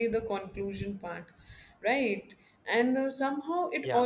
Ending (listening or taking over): listening